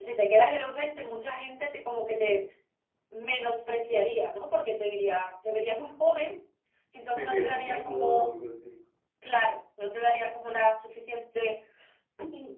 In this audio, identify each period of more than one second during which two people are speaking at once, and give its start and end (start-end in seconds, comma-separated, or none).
7.1-8.4